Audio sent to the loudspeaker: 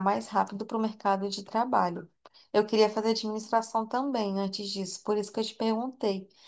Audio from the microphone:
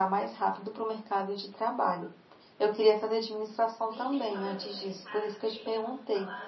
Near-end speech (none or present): present